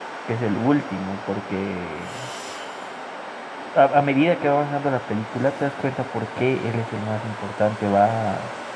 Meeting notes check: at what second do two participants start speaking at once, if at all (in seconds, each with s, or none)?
none